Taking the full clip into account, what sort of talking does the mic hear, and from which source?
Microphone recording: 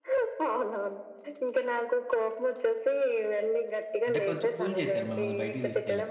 both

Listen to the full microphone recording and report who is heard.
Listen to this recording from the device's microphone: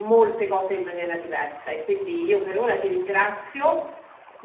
echo only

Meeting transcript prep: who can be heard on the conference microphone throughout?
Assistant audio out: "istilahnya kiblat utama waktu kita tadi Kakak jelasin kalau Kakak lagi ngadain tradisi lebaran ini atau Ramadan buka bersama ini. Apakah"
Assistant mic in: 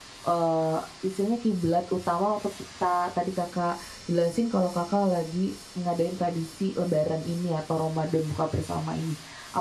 echo only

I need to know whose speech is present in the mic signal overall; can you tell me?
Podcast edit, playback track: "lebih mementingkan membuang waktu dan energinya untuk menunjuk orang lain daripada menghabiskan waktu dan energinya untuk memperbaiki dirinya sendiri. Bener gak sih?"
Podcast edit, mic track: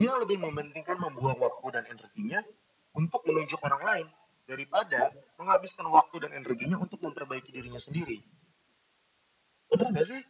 echo only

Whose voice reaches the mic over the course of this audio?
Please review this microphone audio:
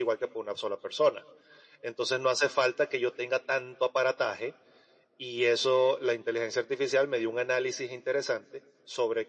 echo only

